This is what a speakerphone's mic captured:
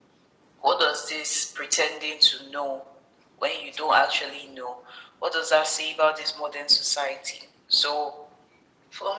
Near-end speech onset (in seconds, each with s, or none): none